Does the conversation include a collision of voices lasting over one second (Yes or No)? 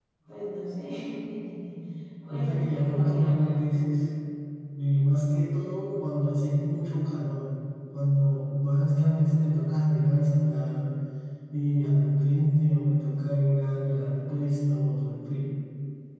Yes